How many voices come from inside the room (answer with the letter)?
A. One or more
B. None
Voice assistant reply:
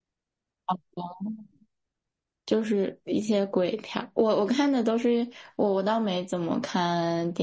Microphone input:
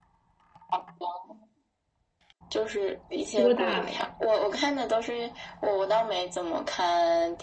A